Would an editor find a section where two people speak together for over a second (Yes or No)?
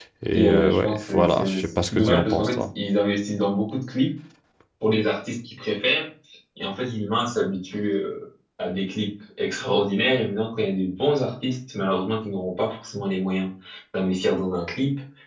Yes